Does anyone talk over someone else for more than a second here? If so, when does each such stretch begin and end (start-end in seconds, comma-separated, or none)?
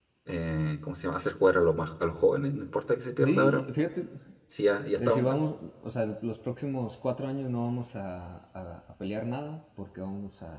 none